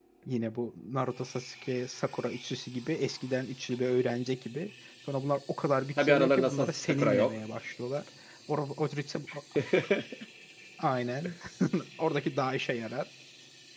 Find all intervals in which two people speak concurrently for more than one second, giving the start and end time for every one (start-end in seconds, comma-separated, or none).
6.0-7.4